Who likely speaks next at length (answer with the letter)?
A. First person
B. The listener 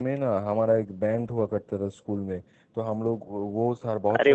A